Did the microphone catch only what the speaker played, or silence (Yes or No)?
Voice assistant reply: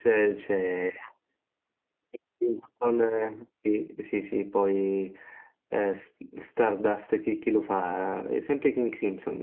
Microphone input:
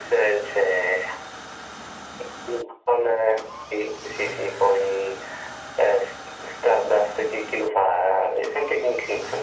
Yes